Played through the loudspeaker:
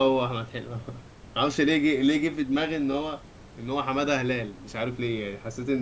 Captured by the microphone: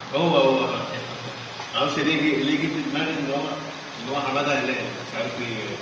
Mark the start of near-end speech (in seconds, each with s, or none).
none